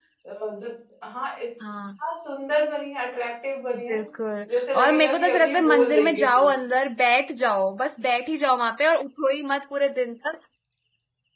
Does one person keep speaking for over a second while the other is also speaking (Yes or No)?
Yes